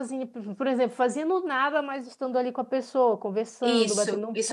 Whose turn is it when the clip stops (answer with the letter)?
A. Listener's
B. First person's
A